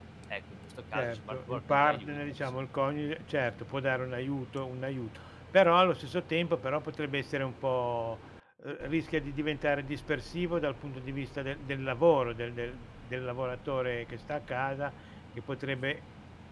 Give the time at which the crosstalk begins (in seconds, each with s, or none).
0.9 s